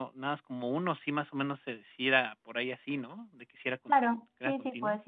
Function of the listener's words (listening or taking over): taking over